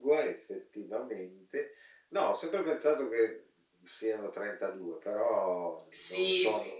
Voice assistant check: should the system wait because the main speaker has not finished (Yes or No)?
No